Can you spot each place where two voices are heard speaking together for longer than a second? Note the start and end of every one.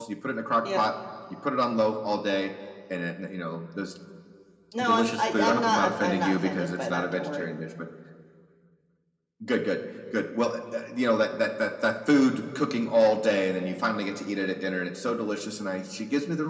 4.8-7.5

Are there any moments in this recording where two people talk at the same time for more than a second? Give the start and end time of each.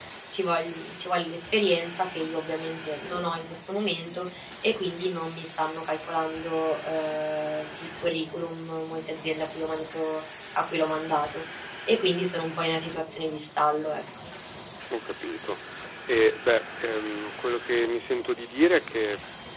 none

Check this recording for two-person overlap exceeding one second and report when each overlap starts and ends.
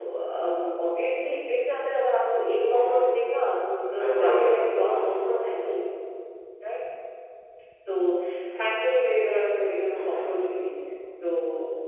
4.0-5.2

